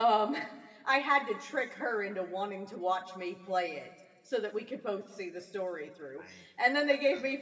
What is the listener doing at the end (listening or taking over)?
listening